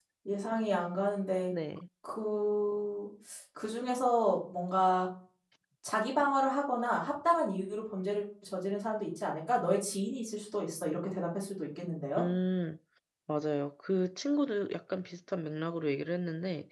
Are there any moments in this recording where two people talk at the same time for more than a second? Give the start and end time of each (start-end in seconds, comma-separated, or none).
none